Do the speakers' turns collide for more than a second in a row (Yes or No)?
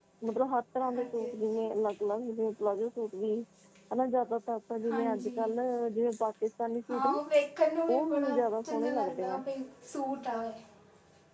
Yes